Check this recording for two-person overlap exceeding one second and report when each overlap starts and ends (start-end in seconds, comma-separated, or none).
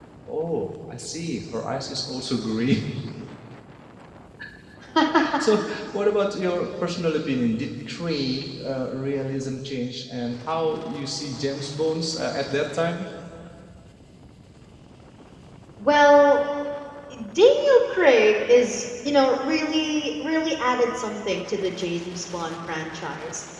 none